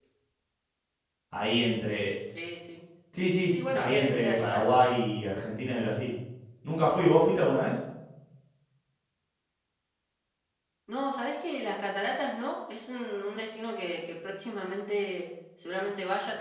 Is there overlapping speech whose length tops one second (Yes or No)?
Yes